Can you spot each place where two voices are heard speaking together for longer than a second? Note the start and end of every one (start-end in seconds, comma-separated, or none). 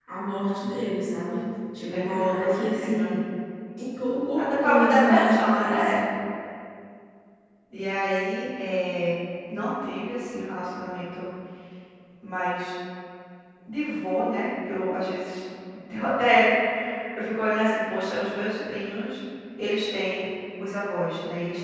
1.9-3.1, 4.3-6.0